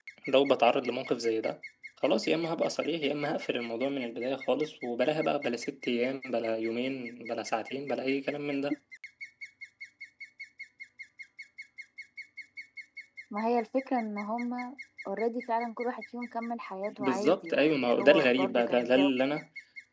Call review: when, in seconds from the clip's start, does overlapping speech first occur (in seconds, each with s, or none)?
16.9 s